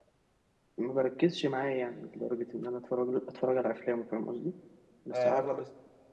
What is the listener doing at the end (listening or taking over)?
taking over